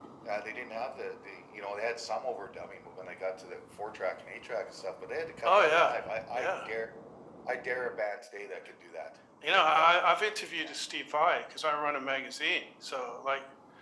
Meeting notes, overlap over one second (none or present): present